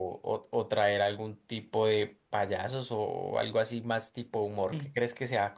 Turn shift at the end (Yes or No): No